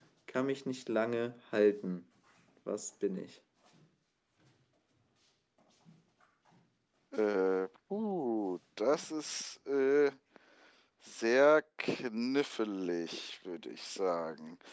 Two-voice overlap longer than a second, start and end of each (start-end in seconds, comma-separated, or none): none